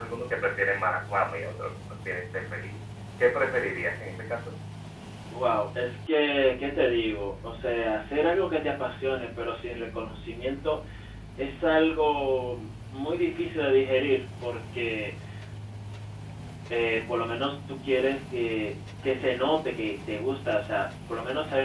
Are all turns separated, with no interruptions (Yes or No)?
Yes